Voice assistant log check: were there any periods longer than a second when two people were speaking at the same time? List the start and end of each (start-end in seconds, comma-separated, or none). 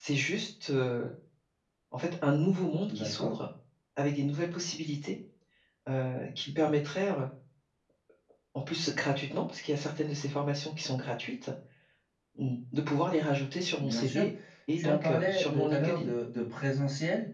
14.8-16.1